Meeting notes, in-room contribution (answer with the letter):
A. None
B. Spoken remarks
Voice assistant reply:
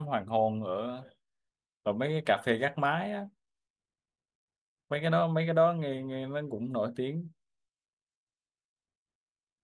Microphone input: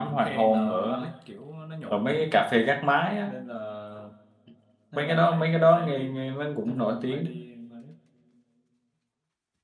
B